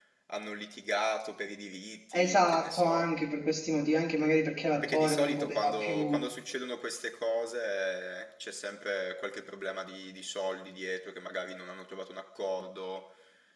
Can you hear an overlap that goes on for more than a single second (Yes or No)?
Yes